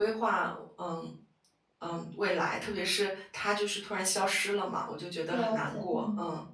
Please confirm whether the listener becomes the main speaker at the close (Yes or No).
Yes